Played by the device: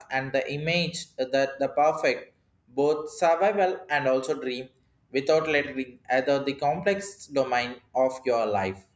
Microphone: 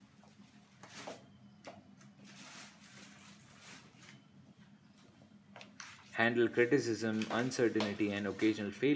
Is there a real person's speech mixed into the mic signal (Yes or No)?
Yes